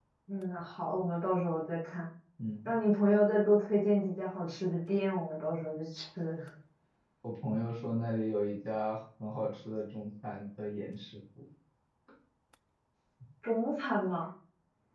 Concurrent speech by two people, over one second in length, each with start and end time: none

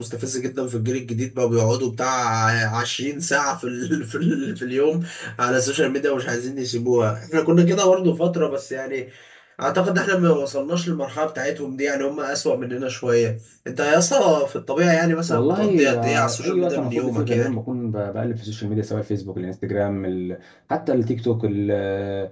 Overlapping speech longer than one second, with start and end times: 15.3-17.5

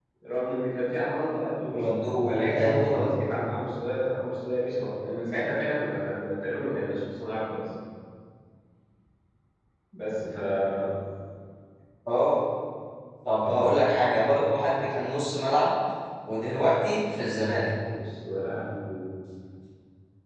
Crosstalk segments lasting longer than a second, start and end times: 1.7-3.1

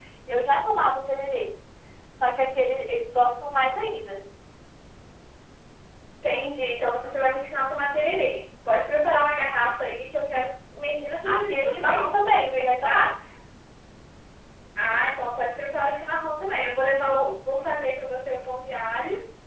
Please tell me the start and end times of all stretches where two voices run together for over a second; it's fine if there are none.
11.2-13.0

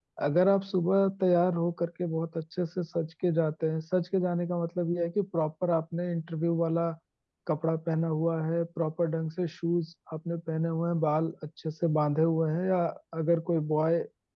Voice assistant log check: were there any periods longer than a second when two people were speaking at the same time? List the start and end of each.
none

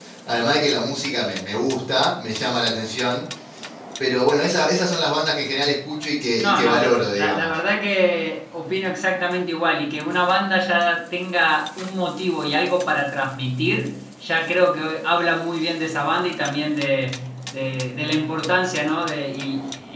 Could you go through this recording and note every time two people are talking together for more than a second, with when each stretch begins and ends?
6.4-7.6

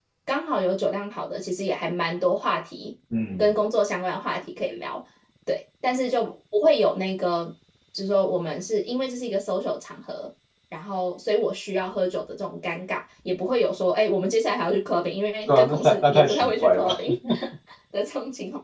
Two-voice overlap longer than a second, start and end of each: 15.5-17.0

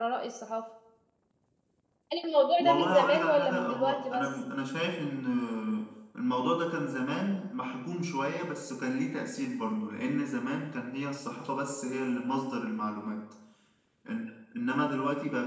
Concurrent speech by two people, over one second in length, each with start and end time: 2.6-4.3

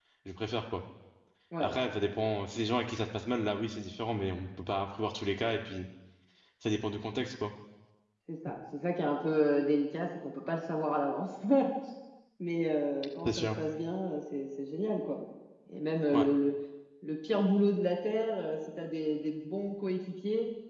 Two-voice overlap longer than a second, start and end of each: none

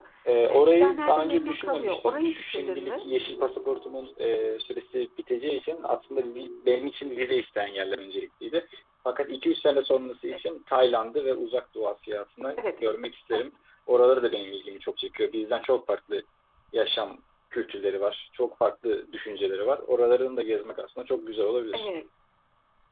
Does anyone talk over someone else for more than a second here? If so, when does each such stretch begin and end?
0.5-3.0

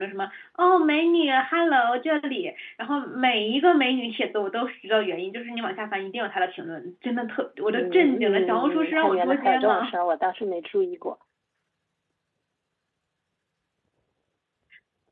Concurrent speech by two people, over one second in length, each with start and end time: 7.7-9.9

